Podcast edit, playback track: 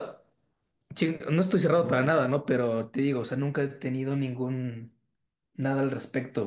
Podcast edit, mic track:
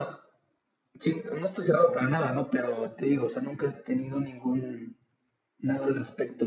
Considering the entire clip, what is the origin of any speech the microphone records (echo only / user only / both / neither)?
echo only